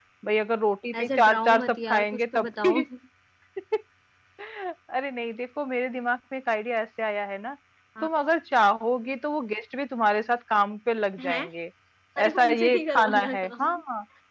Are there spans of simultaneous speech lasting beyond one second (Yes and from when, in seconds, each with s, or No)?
Yes, from 1.0 s